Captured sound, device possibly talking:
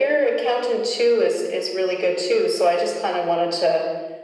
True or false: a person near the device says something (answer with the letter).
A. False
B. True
A